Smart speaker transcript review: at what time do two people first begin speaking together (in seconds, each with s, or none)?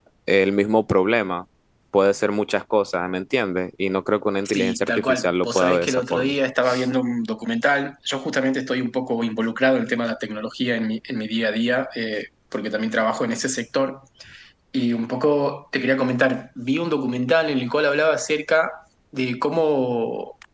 4.5 s